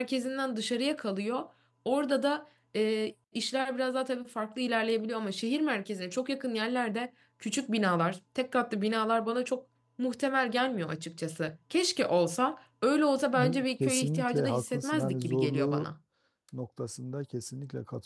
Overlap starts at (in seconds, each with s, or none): 13.3 s